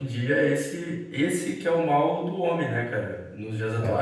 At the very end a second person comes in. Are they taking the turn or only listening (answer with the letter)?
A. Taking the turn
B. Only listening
B